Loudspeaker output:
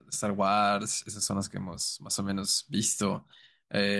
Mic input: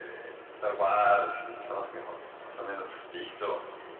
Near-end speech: none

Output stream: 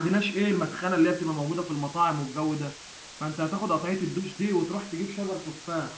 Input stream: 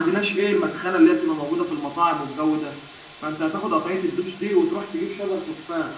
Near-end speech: none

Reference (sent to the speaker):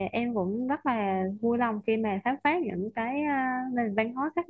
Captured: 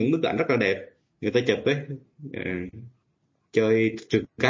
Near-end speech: present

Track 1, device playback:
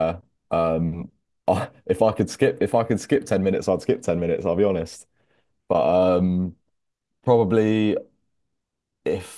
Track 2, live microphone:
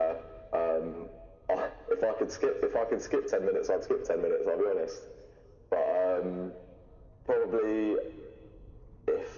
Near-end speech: none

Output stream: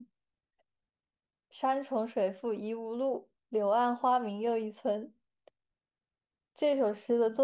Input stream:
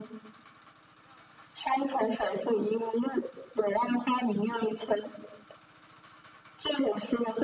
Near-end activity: none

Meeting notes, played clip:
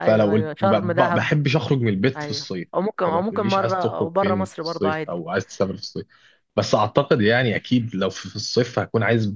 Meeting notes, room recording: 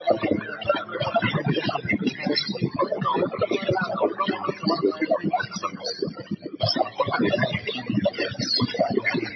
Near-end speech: none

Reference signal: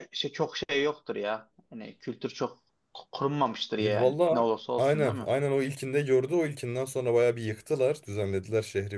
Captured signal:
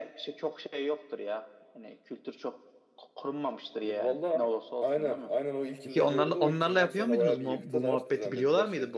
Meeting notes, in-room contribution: present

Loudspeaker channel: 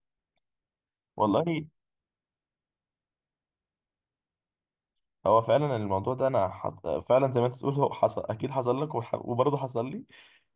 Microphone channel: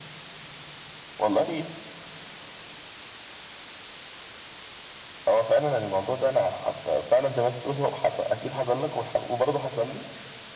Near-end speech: none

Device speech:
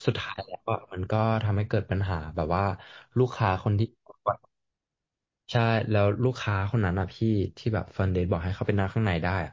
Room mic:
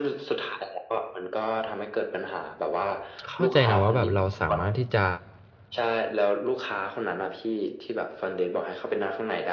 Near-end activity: present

